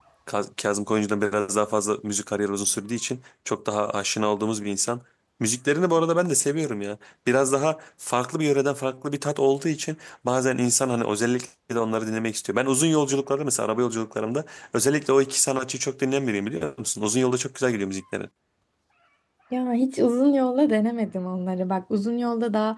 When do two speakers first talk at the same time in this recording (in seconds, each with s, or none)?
none